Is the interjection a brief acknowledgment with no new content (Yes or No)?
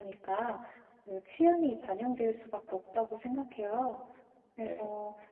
Yes